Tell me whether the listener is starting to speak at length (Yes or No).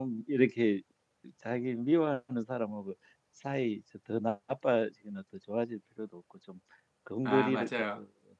No